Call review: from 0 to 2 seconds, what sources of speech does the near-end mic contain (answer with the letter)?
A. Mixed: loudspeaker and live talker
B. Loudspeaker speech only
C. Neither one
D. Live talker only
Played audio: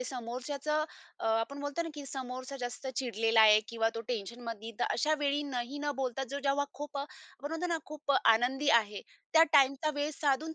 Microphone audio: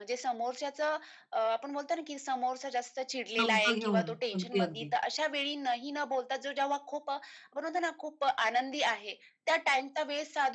B